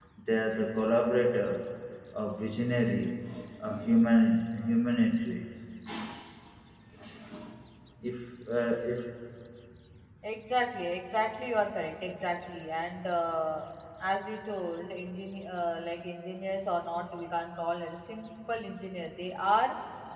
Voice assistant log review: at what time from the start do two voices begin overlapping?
none

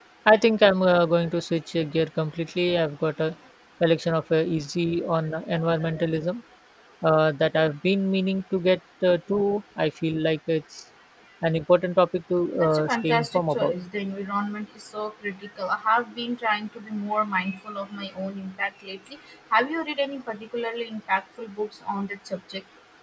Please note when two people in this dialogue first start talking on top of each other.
13 s

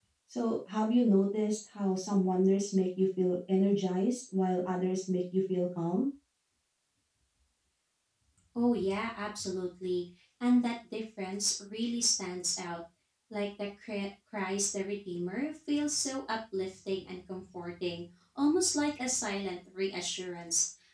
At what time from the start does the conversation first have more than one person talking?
none

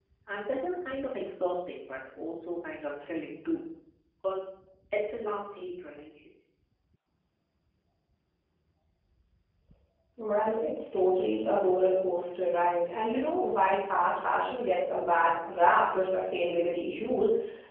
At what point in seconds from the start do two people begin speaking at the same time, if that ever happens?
none

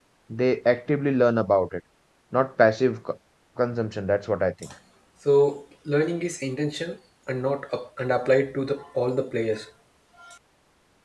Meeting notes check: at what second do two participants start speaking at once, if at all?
none

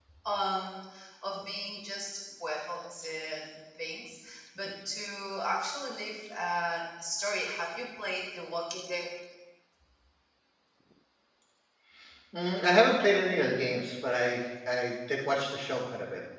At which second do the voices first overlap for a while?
none

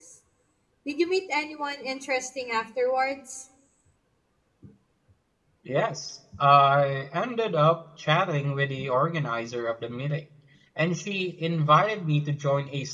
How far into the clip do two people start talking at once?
none

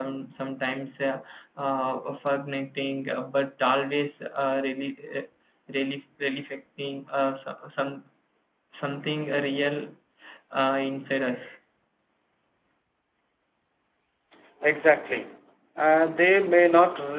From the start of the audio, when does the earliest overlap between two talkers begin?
none

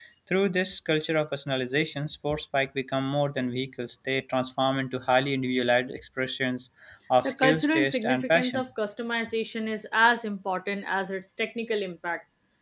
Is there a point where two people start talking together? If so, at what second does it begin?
7 s

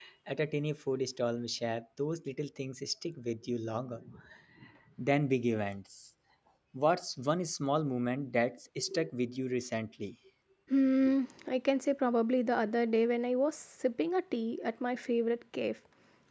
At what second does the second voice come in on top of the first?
none

